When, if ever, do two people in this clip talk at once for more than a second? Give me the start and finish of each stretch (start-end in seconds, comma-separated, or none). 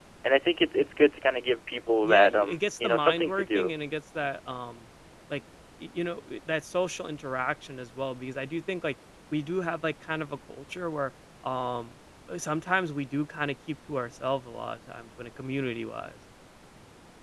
2.0-3.7